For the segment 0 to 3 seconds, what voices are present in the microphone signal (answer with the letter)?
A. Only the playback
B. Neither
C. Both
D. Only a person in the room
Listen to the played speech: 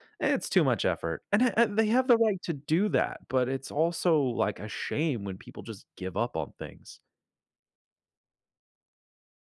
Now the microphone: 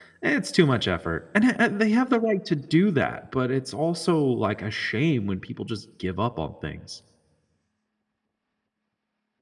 A